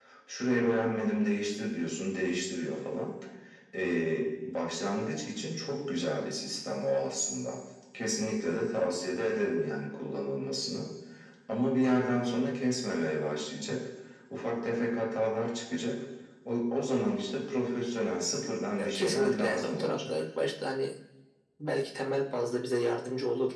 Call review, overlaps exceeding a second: present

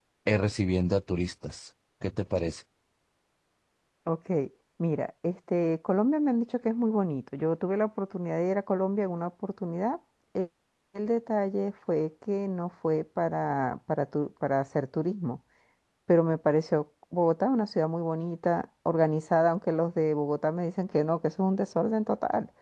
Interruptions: none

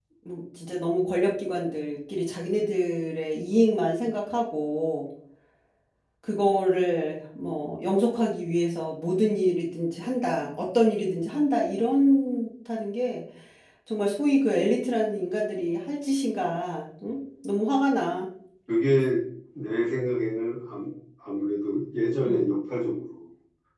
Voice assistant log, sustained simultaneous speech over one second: none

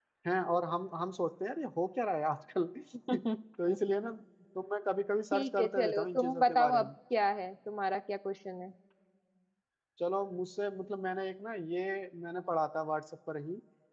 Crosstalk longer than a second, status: present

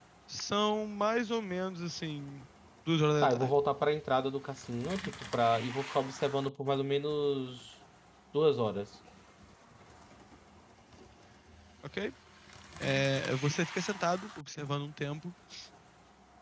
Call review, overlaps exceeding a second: none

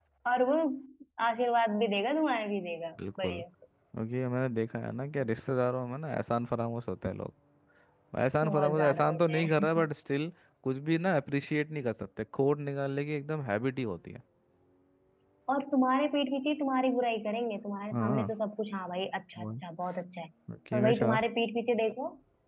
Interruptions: present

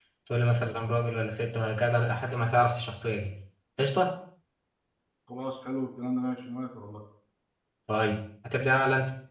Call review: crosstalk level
none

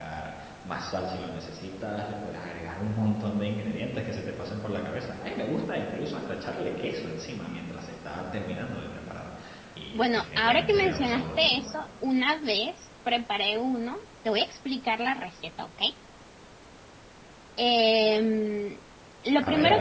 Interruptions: present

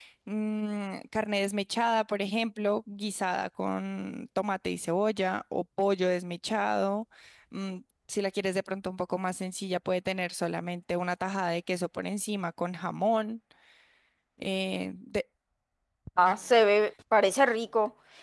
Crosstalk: none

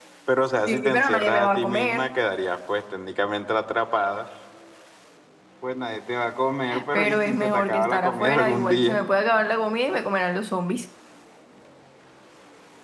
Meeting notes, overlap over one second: present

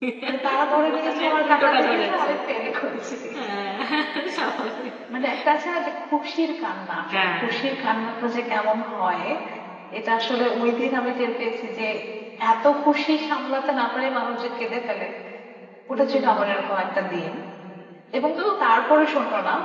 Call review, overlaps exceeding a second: present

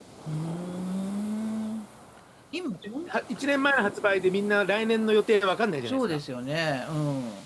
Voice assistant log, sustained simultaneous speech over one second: none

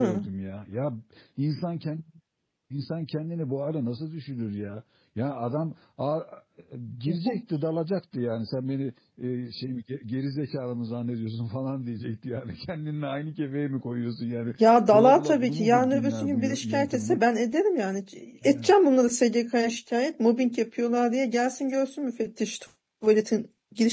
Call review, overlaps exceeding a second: present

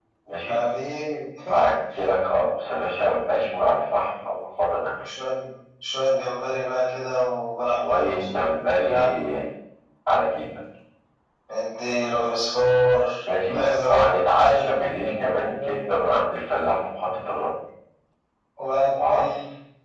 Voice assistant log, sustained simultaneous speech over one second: present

